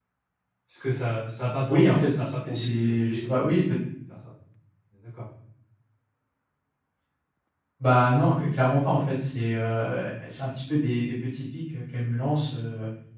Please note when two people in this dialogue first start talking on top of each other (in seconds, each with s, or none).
1.7 s